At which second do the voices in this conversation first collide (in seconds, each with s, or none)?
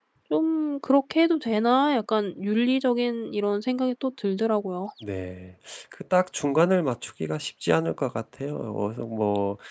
none